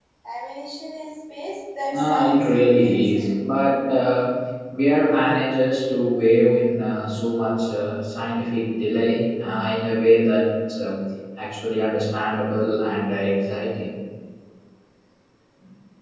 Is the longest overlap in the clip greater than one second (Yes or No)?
Yes